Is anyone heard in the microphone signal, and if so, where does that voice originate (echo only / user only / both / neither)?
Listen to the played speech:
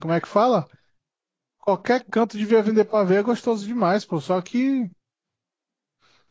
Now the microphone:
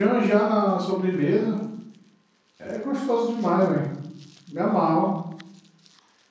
user only